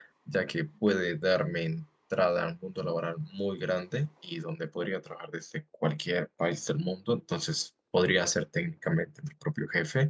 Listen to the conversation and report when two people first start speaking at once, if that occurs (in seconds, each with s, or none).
none